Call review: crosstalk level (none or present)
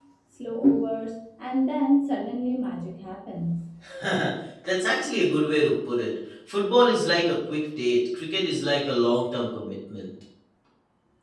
none